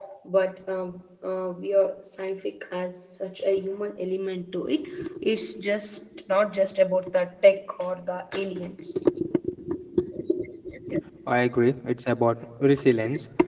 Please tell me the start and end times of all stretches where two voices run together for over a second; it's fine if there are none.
none

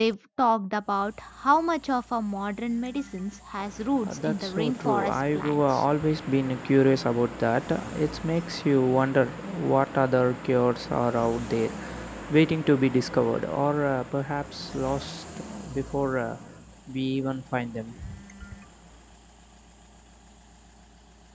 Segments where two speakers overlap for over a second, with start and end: 4.1-5.8

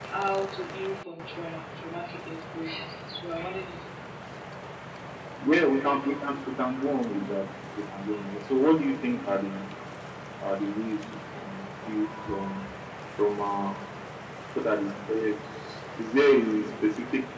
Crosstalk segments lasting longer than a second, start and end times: none

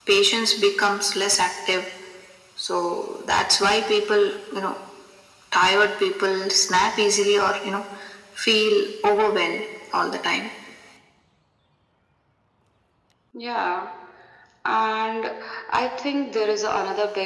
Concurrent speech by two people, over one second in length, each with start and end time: none

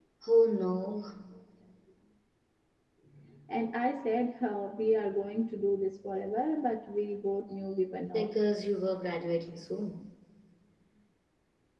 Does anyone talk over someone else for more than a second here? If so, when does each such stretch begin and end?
none

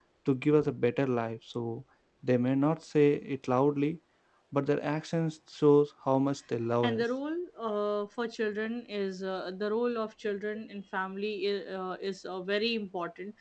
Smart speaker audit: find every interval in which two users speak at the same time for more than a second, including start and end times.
none

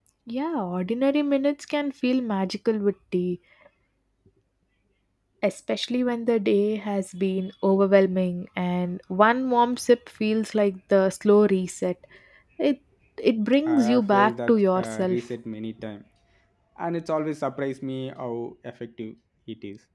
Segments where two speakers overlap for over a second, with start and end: 13.7-15.2

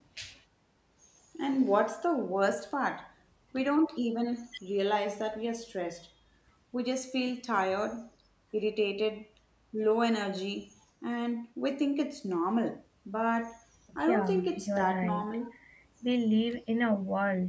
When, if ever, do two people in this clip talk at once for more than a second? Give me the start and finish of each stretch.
14.0-15.3

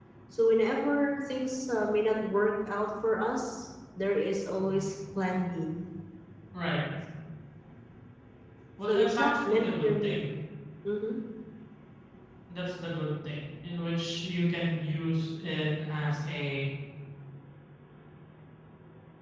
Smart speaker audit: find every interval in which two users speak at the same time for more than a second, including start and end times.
8.9-10.2

